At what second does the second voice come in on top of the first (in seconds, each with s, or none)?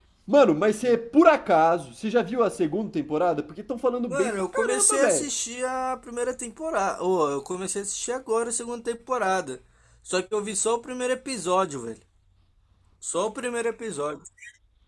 4.1 s